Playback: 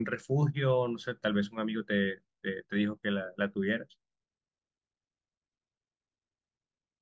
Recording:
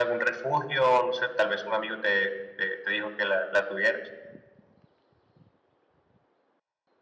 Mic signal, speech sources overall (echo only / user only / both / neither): echo only